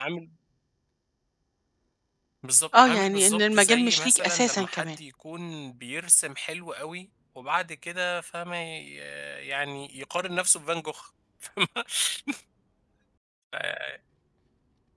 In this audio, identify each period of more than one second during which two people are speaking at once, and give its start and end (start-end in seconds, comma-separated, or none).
2.8-5.0